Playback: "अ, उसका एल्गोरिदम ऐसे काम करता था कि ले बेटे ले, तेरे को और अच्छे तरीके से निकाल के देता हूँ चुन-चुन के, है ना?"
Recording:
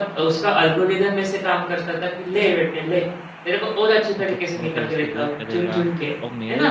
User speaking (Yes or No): Yes